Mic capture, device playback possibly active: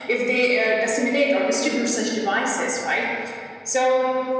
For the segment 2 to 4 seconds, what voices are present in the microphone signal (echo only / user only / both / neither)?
echo only